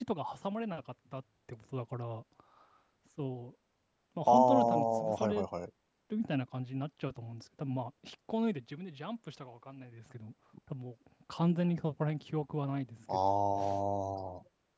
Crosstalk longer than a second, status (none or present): present